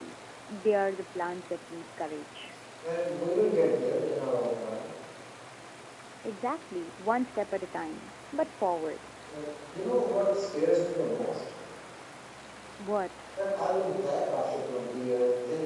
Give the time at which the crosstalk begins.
none

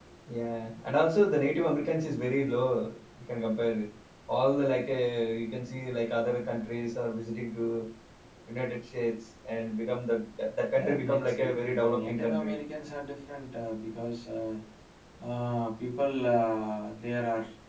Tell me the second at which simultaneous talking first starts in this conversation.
10.8 s

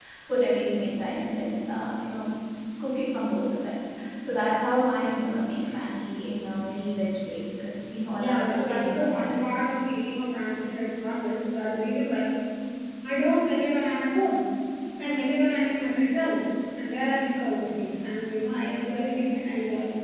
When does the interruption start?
8.1 s

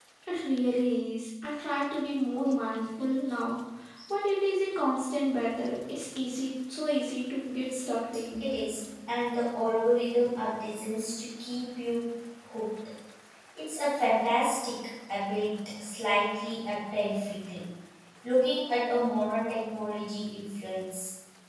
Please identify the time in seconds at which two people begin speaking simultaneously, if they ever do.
none

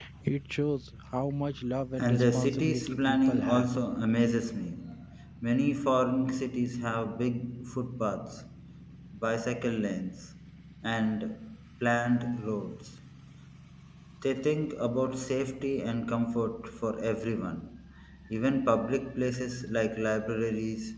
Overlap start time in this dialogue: 1.9 s

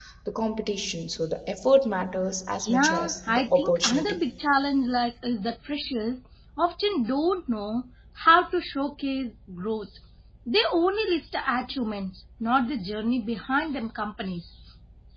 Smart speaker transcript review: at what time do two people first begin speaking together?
2.6 s

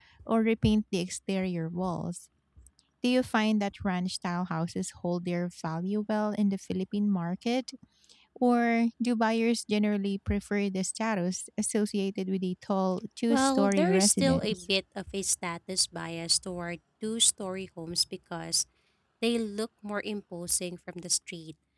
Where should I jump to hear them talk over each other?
13.3 s

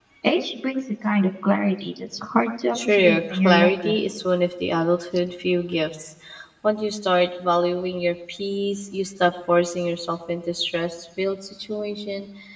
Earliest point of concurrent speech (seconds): 2.7 s

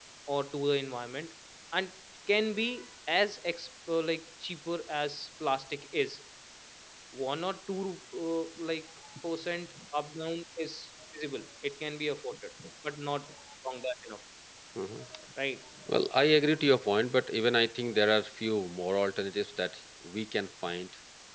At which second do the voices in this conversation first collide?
none

